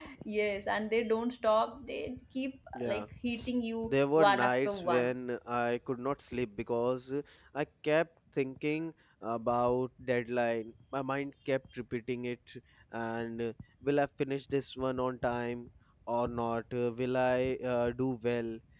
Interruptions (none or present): present